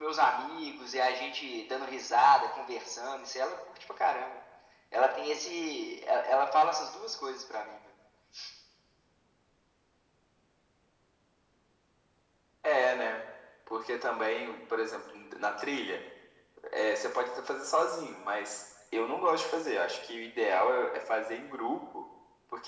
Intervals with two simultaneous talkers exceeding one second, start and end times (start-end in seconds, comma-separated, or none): none